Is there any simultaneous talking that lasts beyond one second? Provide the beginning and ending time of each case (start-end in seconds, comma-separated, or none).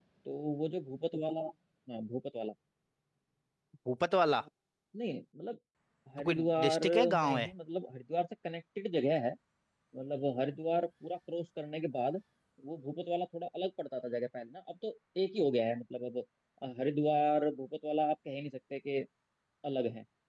6.2-7.5